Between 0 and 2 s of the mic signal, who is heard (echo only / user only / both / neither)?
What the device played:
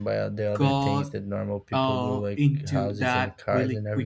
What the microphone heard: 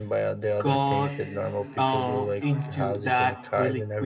both